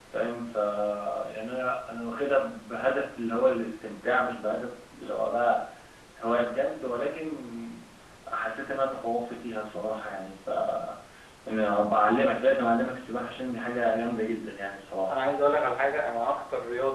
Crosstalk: none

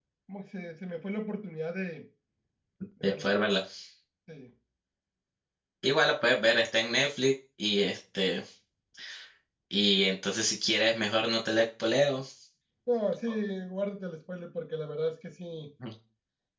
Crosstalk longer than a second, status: none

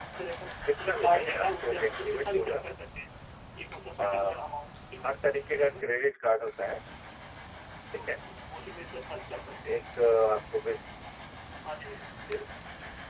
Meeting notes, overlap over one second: present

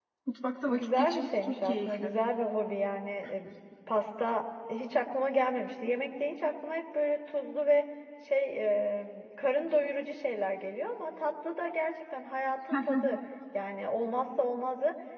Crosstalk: present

